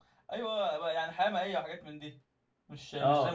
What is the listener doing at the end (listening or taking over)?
taking over